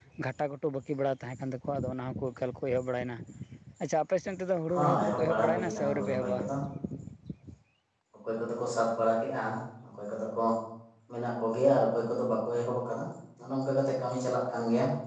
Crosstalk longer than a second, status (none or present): present